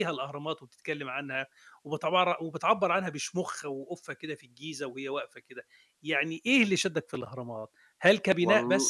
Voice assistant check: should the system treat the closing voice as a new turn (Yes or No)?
No